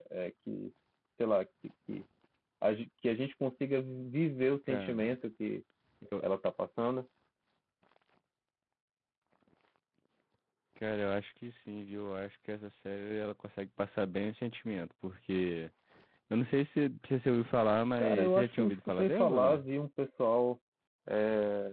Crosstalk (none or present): present